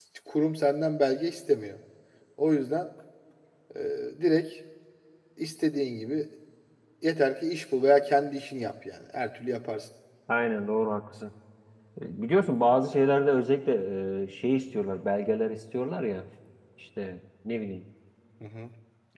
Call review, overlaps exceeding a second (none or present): none